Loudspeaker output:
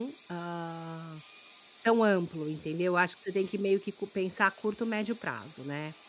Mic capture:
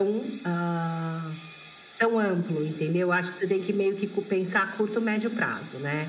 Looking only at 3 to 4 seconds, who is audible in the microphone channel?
echo only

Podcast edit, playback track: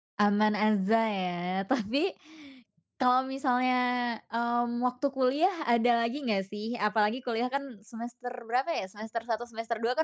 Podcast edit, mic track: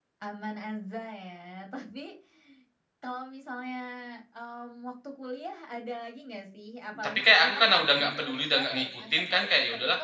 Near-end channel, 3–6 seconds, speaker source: echo only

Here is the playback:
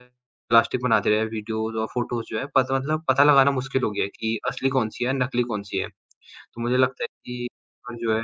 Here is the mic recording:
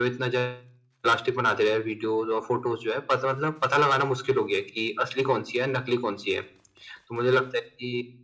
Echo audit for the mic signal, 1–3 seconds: echo only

